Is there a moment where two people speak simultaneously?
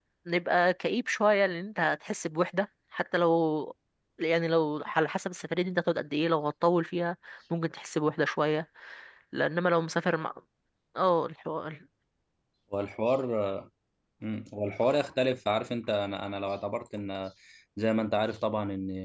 No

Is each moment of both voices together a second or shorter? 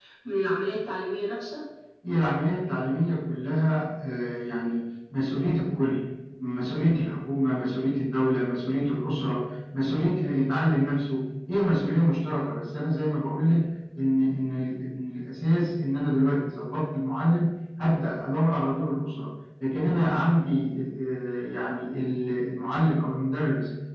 Yes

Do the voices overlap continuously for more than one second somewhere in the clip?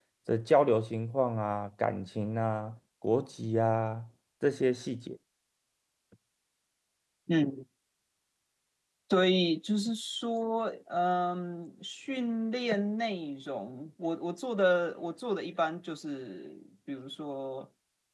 No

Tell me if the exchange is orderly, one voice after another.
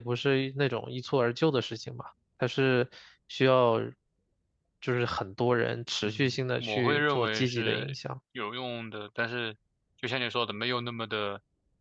No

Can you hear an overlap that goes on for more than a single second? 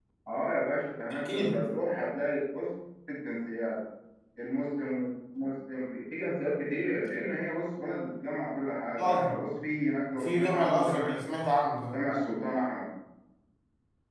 Yes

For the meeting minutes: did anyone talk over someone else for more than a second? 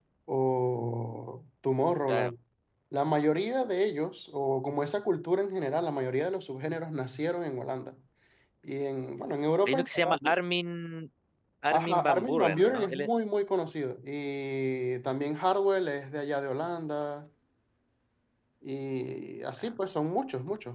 Yes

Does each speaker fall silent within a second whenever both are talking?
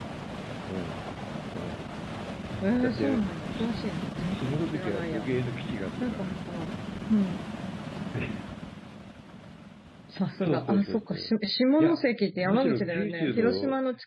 No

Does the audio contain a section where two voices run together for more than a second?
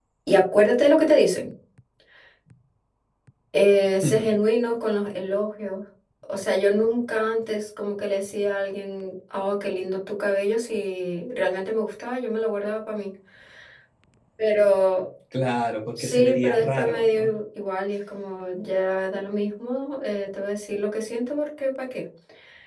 Yes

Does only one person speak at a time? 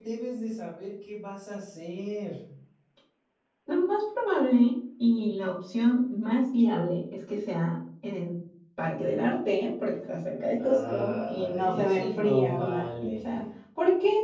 No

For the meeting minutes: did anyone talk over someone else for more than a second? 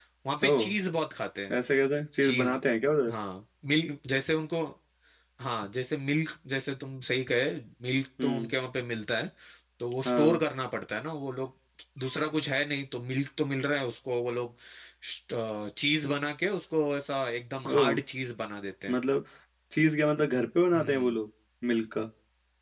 No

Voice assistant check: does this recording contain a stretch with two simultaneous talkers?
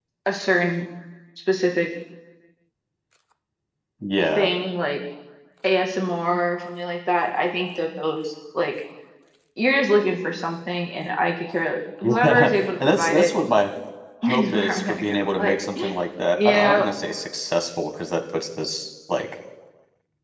Yes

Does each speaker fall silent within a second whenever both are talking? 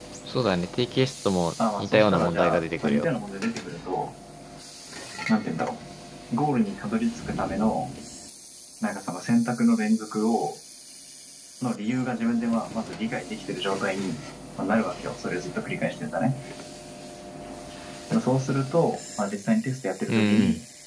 No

